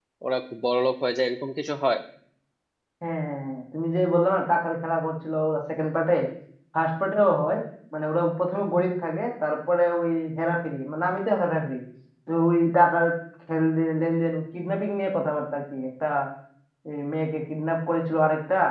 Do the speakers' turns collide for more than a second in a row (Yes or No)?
No